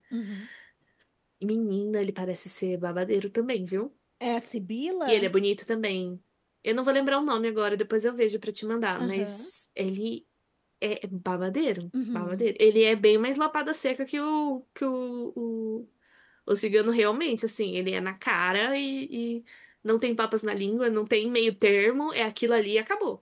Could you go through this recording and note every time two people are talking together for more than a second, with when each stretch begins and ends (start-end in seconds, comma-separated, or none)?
none